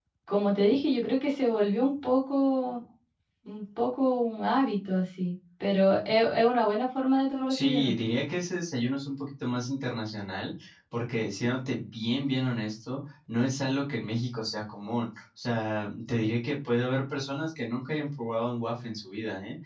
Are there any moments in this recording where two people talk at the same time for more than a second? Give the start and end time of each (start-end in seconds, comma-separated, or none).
none